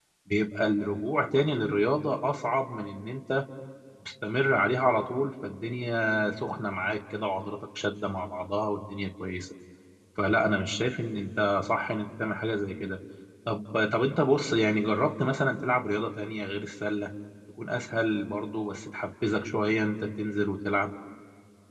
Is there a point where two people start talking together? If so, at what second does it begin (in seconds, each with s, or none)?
none